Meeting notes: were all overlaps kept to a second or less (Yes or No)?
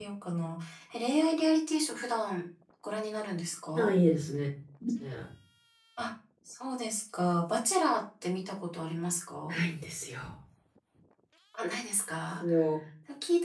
Yes